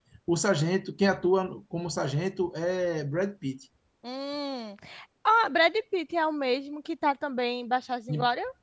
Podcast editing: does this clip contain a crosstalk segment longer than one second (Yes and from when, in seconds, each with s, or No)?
No